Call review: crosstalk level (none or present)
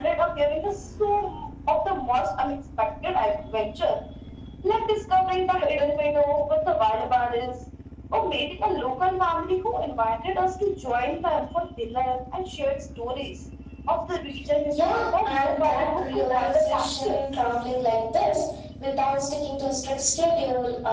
present